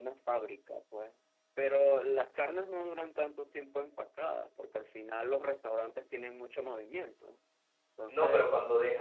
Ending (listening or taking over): taking over